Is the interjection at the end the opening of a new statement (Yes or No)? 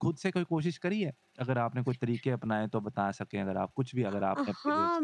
Yes